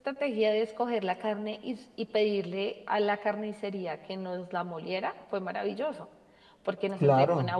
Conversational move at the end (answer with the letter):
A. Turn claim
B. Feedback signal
B